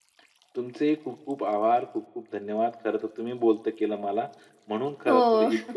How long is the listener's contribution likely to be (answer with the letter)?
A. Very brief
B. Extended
A